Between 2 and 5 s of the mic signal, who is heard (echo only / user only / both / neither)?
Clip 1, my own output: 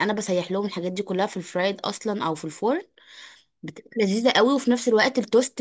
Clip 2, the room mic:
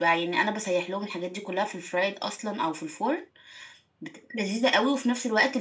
echo only